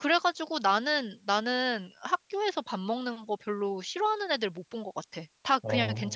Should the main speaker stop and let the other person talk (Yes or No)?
No